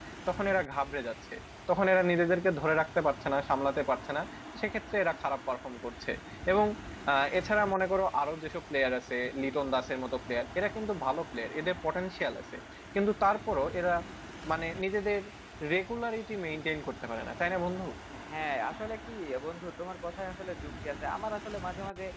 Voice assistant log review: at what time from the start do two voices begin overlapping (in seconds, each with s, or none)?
none